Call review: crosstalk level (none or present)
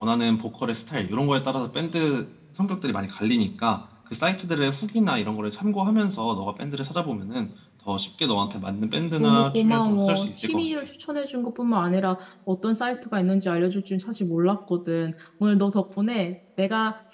present